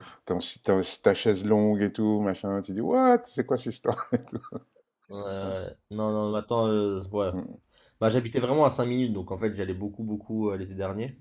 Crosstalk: none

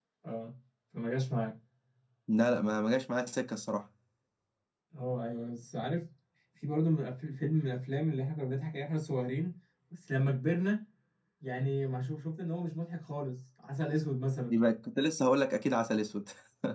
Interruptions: none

